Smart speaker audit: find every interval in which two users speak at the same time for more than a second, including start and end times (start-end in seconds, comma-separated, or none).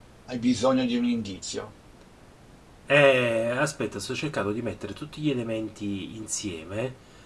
none